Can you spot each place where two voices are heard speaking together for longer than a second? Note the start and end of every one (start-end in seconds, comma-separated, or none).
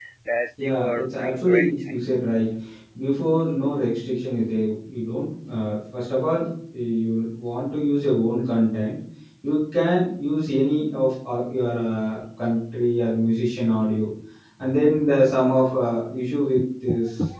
0.6-2.0